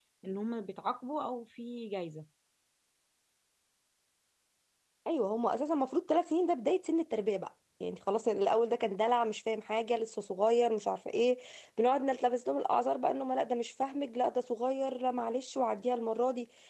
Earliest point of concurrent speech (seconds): none

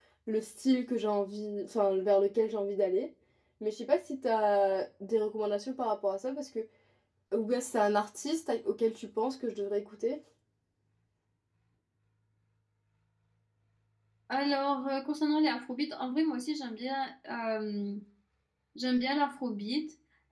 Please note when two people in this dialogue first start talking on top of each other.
none

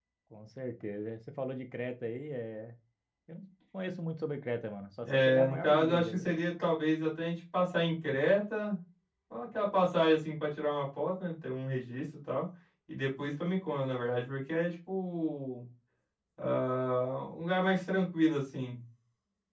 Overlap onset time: 5.0 s

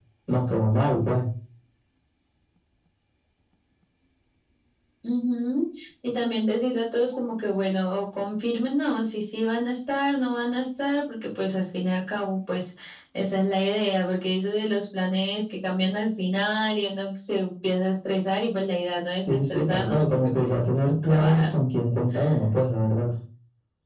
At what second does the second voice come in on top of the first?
19.2 s

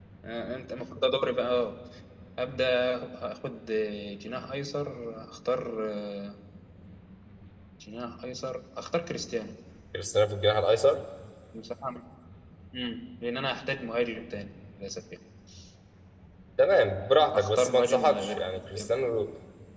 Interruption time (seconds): 17.3 s

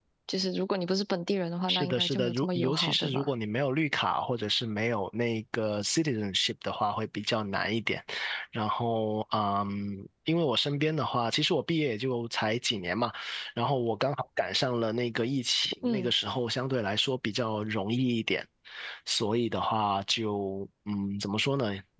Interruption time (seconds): 1.7 s

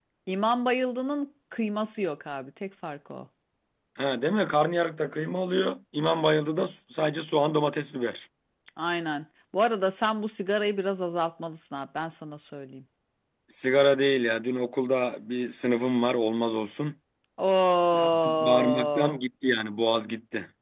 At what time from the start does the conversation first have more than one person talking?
17.9 s

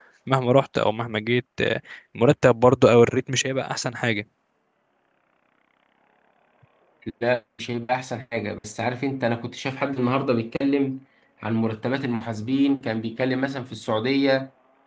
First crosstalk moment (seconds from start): none

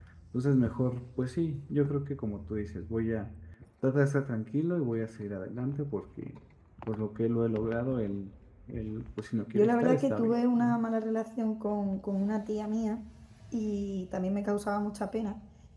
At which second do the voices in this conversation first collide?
9.5 s

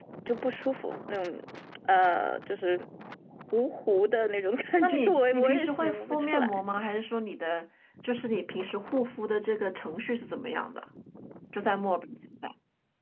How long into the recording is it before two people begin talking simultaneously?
4.8 s

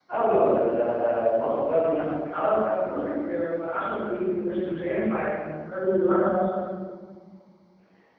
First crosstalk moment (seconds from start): none

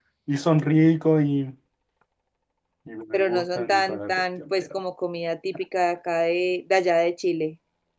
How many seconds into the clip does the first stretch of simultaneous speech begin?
3.1 s

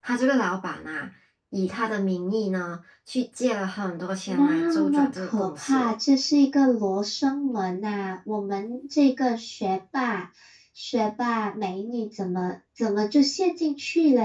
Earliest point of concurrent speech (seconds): 4.3 s

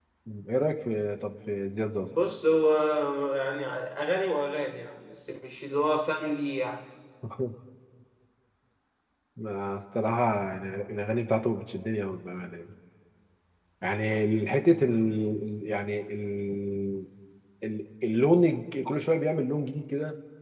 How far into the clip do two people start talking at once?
none

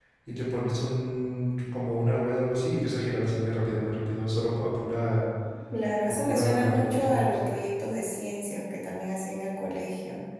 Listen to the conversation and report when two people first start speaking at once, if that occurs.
6.1 s

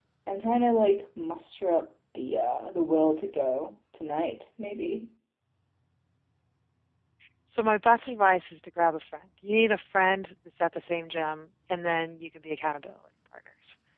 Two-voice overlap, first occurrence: none

